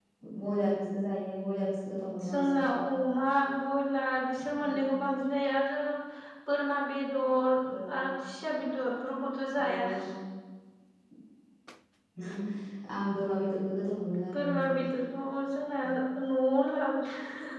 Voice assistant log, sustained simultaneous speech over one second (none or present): none